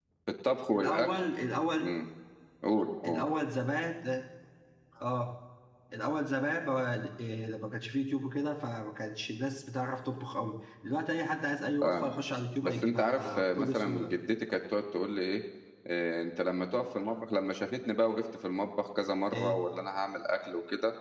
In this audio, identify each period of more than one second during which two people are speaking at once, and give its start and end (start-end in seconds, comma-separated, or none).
12.6-14.1